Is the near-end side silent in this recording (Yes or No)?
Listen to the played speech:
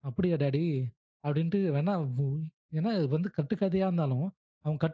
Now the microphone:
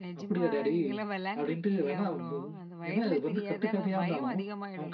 No